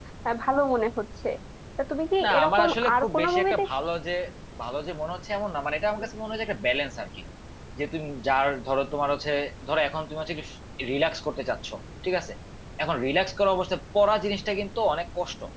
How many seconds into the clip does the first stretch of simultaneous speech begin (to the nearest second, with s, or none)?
2 s